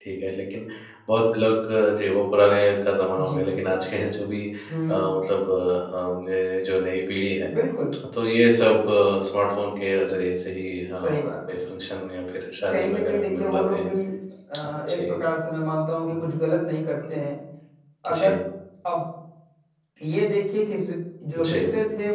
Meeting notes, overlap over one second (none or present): present